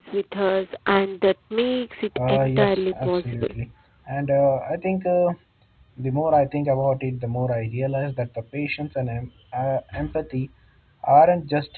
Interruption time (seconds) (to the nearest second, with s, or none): 2 s